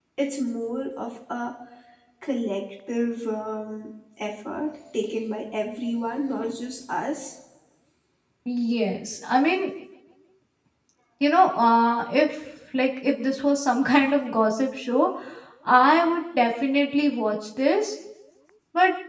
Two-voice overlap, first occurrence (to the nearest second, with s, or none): none